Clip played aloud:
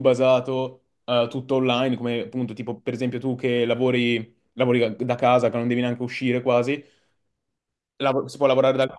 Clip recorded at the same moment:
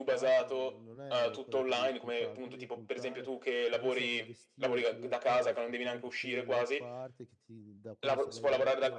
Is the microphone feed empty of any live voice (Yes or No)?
No